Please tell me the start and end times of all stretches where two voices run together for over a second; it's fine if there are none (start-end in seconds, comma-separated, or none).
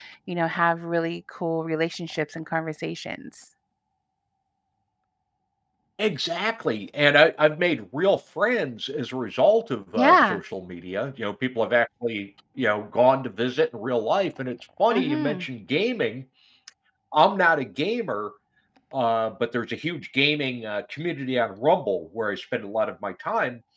none